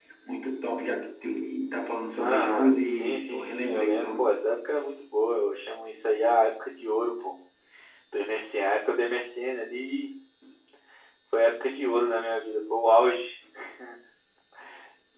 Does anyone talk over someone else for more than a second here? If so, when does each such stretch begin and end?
2.2-4.2

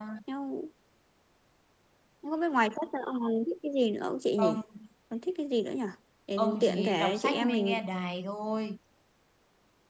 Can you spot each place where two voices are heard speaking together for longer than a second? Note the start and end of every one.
6.4-7.8

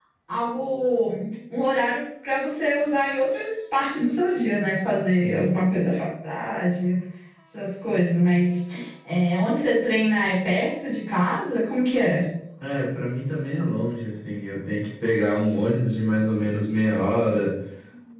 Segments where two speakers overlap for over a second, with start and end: none

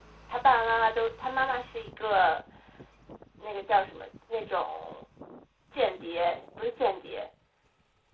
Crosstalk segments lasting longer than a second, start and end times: none

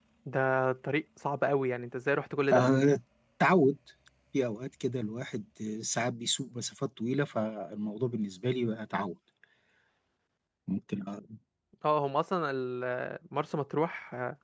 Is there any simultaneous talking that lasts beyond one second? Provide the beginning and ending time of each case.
none

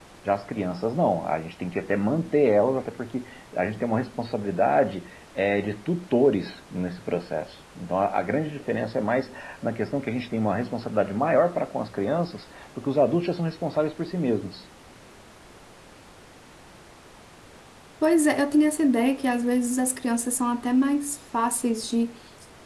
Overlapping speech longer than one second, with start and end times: none

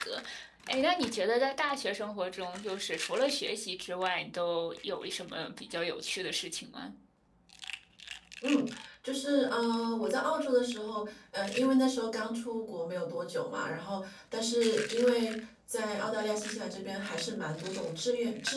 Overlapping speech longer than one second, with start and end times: none

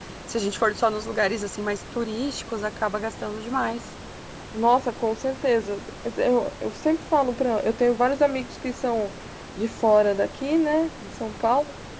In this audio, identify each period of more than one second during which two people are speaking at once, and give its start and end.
none

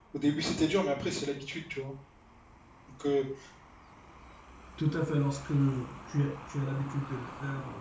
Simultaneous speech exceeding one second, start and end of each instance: none

